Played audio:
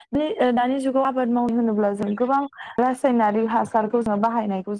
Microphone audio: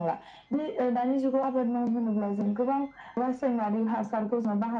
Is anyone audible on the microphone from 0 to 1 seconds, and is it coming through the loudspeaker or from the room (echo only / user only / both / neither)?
echo only